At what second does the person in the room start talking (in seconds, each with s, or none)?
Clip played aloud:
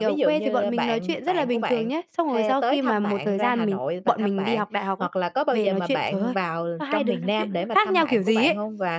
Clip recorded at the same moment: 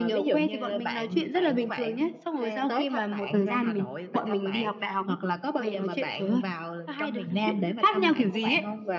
none